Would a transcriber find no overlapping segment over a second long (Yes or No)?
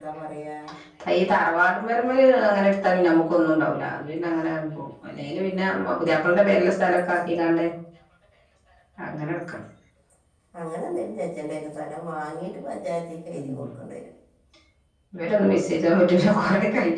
Yes